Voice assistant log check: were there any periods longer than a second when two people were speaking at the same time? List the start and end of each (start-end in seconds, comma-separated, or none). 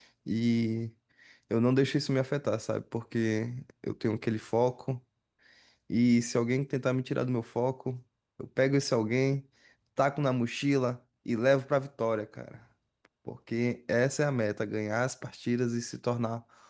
none